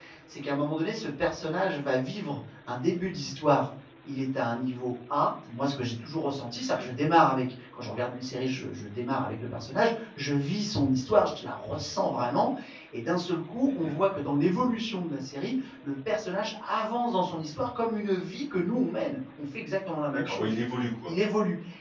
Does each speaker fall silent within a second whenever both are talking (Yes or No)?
Yes